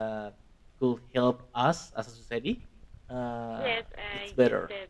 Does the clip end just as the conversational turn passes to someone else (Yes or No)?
Yes